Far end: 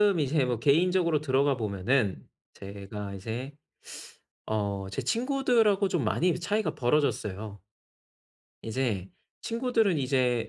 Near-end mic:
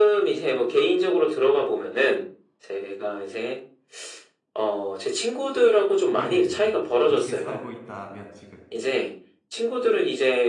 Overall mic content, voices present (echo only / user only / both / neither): both